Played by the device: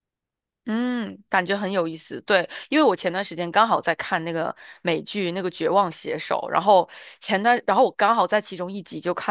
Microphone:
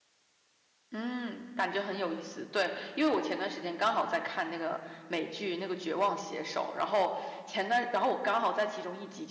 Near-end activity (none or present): none